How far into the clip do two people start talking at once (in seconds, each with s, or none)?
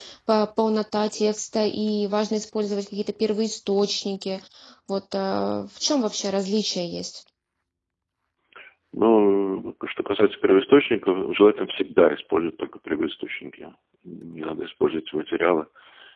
none